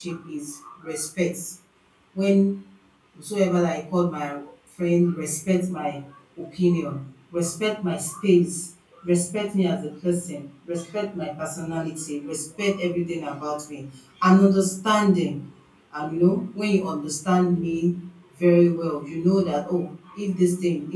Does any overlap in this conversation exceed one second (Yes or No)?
No